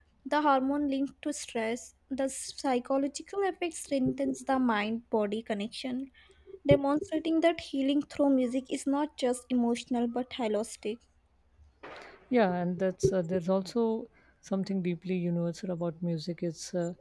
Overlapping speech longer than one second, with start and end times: none

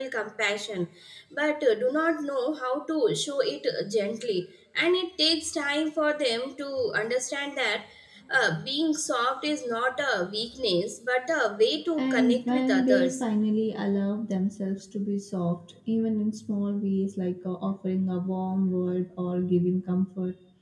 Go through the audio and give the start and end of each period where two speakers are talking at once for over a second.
12.0-13.2

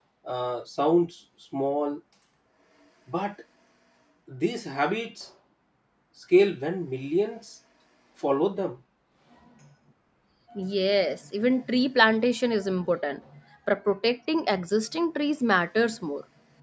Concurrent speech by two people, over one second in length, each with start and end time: none

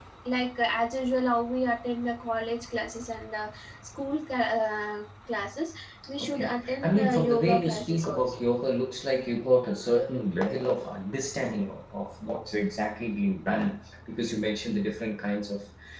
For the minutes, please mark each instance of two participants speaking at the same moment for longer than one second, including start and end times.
6.2-8.4

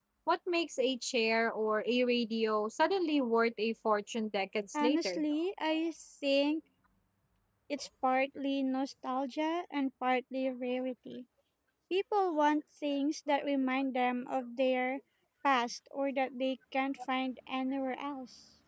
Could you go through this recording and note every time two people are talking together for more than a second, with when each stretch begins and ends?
none

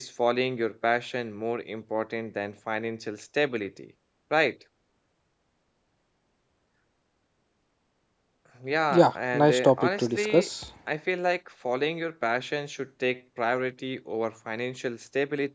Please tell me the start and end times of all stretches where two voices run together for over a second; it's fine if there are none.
8.9-10.5

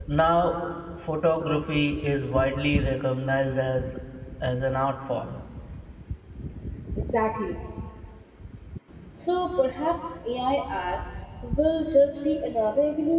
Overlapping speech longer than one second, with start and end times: none

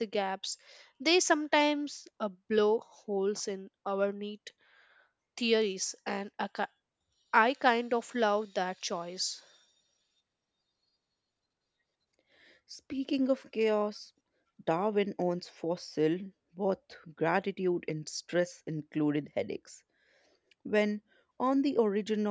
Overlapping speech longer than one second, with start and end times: none

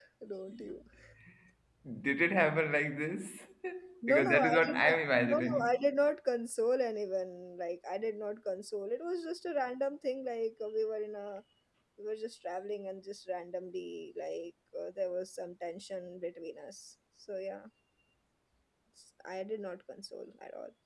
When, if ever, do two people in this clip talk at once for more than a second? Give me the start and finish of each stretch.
4.1-5.9

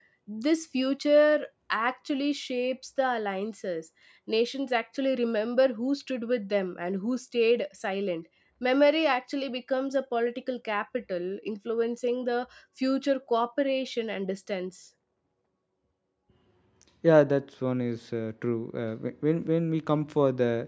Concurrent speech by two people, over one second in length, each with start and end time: none

